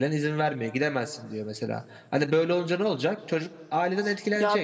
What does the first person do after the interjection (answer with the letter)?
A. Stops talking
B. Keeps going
A